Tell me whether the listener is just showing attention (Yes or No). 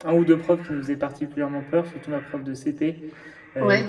Yes